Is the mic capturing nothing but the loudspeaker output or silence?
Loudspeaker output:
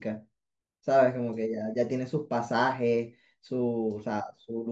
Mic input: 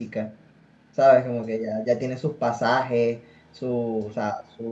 Yes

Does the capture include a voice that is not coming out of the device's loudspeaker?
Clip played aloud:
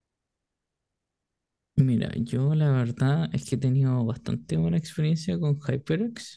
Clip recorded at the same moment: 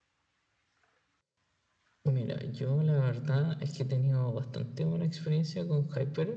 No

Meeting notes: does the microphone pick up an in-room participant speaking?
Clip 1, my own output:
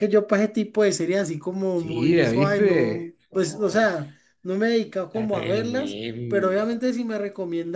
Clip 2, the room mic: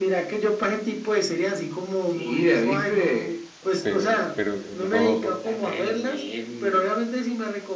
Yes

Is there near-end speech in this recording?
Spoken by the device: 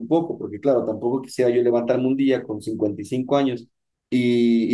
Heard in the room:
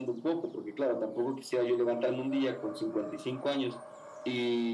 No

